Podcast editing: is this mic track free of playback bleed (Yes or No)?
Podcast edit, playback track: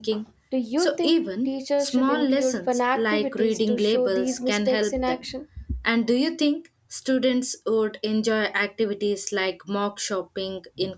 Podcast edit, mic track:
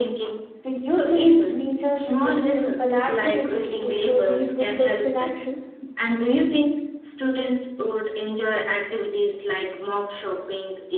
No